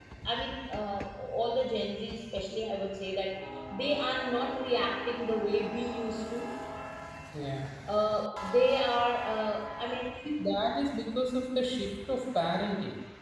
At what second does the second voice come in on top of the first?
none

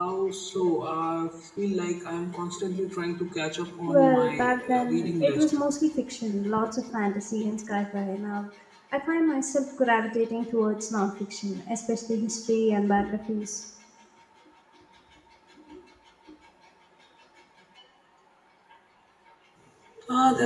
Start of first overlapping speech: 3.9 s

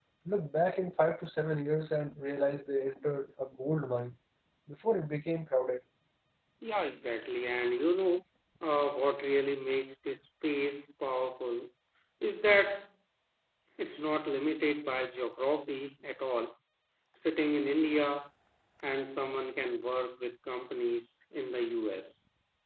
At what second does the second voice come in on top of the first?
none

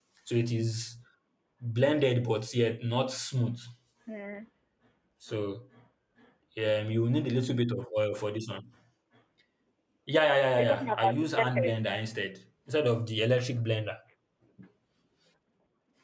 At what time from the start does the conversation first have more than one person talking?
10.5 s

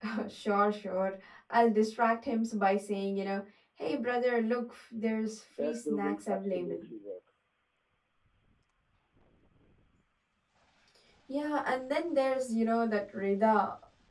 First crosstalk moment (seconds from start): 5.6 s

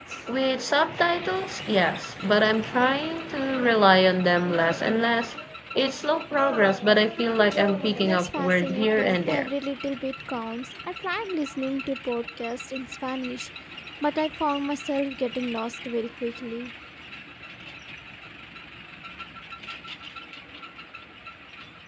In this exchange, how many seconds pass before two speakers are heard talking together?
8.0 s

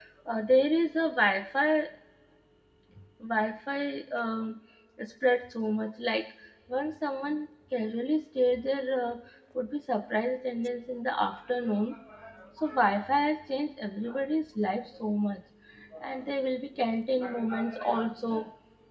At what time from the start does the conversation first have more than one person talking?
none

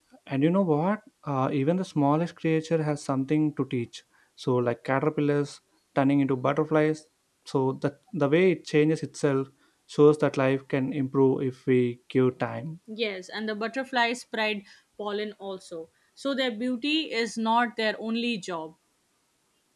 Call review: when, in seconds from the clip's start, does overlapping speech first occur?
none

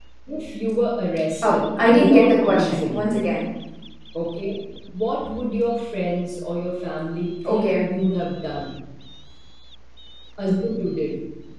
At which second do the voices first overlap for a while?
1.4 s

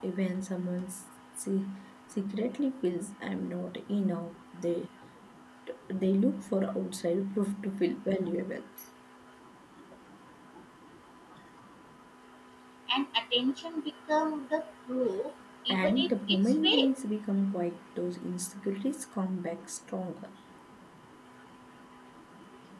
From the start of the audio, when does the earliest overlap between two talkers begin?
15.7 s

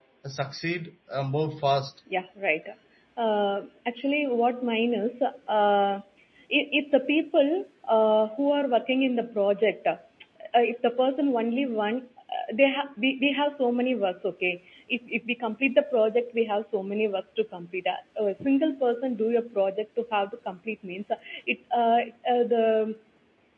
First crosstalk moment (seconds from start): none

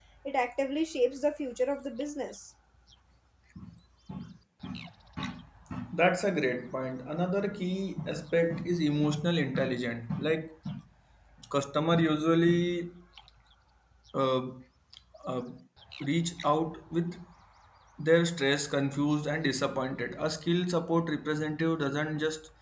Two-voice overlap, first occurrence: none

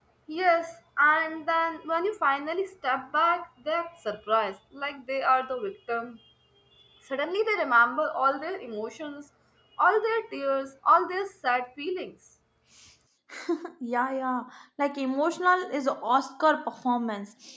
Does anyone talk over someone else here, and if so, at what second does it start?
none

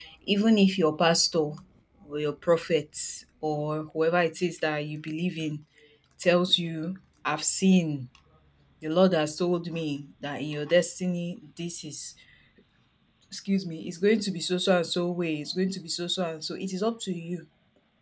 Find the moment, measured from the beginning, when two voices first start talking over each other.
none

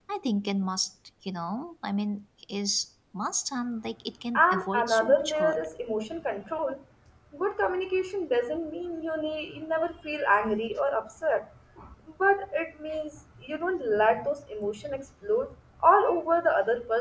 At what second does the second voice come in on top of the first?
4.4 s

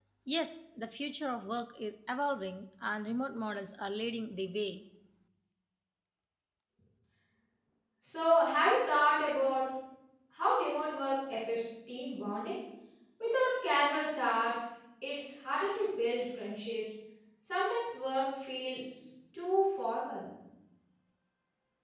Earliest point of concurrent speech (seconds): none

